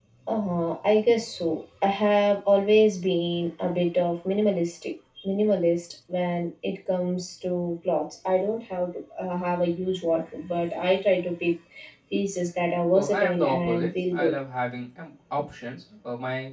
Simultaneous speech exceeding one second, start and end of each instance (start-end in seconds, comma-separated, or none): 12.9-14.3